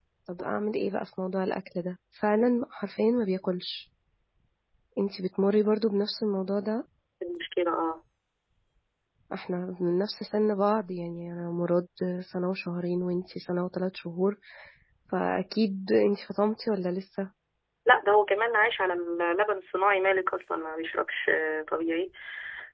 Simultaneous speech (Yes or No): No